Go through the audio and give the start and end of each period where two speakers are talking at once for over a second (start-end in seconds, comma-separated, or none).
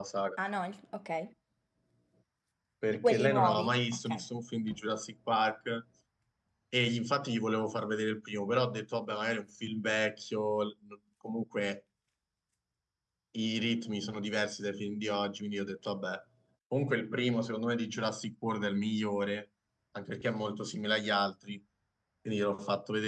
2.9-4.2